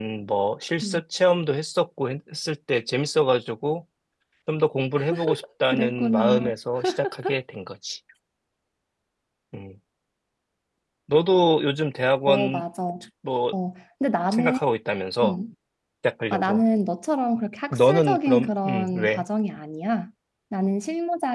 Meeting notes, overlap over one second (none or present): present